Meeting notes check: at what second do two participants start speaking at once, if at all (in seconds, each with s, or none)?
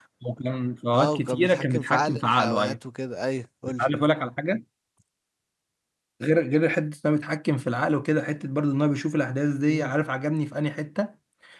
0.9 s